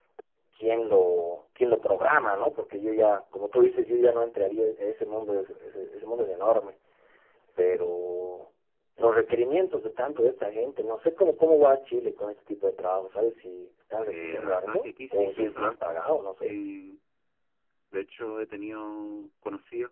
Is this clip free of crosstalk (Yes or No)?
No